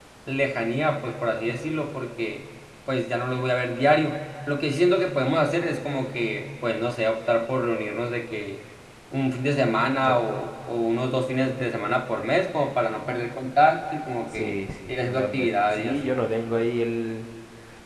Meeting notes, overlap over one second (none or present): present